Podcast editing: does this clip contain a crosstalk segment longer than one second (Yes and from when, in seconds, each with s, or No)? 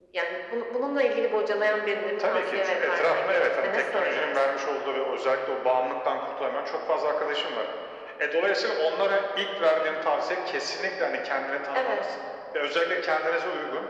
Yes, from 2.3 s